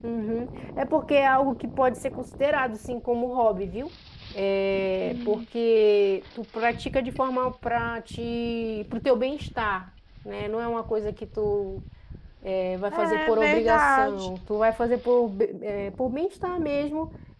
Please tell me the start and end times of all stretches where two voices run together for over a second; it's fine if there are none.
12.9-14.3

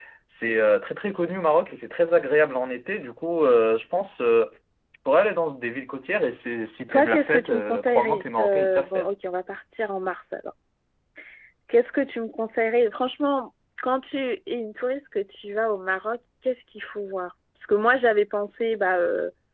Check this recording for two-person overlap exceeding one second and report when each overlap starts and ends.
6.9-9.1

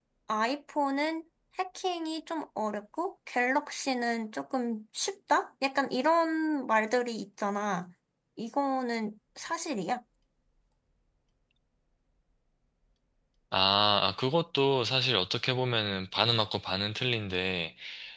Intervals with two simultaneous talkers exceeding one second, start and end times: none

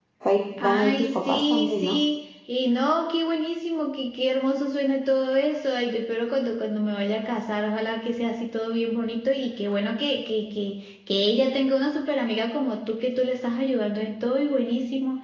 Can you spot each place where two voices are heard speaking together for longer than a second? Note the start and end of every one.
0.6-2.0

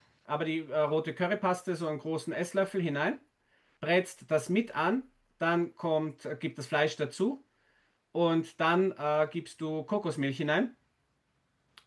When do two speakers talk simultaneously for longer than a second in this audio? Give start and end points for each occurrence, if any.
none

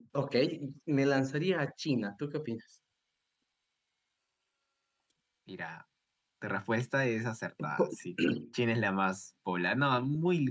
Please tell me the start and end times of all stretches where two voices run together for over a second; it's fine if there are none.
none

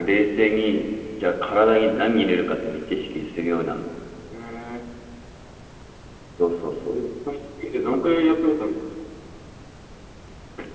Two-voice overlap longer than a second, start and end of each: none

